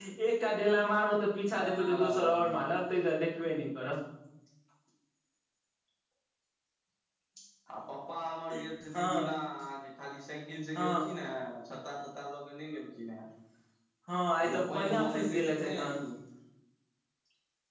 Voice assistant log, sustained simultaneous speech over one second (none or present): present